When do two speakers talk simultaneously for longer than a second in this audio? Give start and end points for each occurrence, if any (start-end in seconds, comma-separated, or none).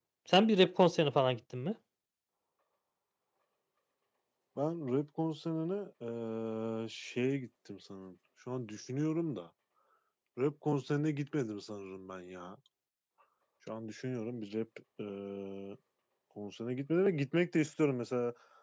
none